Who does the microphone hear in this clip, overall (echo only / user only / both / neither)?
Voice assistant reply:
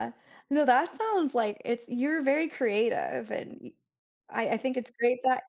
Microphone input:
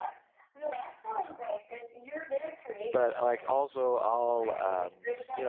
both